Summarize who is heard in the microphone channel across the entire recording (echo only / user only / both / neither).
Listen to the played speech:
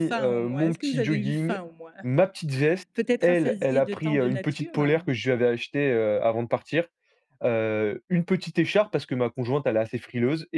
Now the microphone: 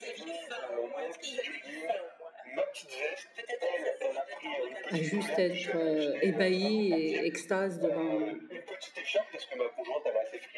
both